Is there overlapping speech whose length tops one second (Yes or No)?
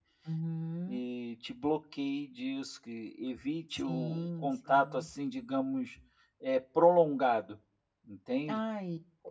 Yes